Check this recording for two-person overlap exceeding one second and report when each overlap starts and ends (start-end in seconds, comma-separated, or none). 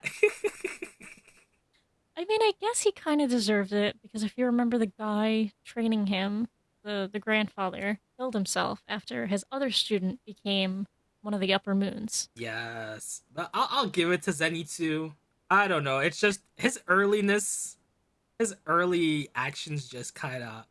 none